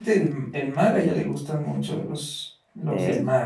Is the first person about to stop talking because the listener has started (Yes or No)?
No